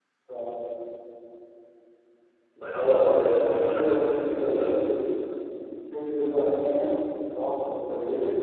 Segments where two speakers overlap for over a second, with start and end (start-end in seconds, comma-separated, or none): 2.7-4.7